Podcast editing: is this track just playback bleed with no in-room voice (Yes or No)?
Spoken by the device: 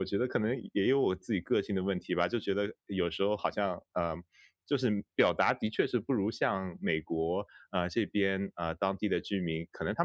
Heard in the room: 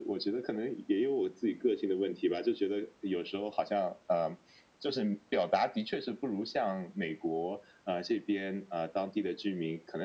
Yes